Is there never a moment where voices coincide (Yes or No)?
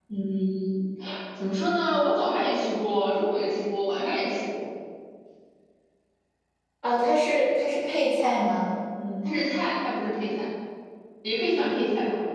Yes